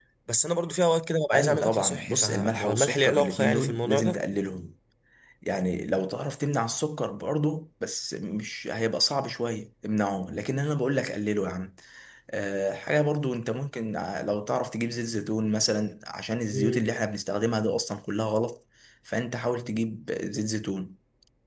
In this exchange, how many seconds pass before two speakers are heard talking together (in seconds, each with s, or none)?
1.3 s